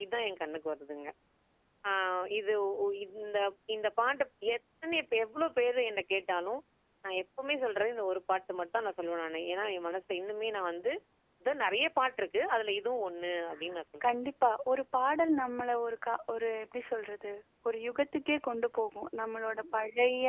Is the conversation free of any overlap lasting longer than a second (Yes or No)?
Yes